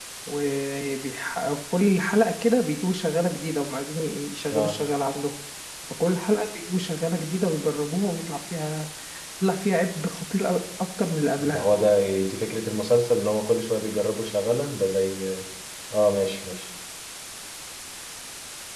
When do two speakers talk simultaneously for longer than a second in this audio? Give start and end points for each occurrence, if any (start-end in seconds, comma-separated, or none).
none